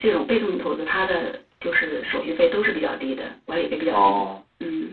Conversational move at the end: taking over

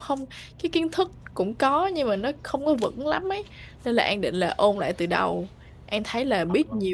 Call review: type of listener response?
listening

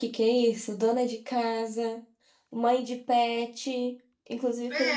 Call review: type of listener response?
taking over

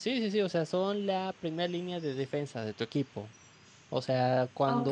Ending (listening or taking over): taking over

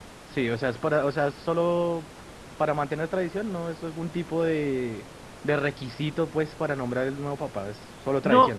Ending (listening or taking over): taking over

